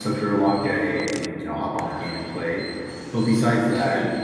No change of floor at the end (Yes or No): Yes